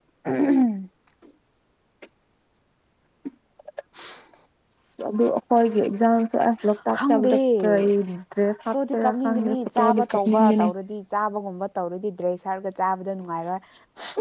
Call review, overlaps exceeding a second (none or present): present